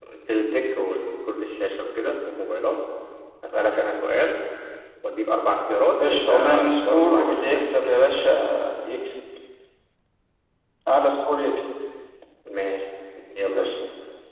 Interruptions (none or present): present